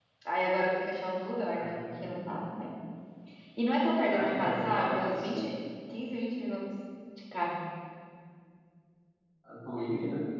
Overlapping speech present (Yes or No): Yes